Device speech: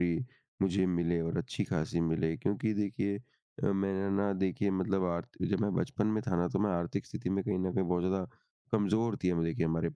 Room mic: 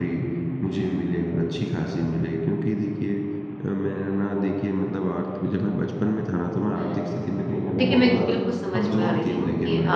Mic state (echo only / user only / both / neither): both